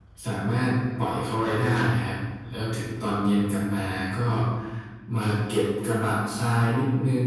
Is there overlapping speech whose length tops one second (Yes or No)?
No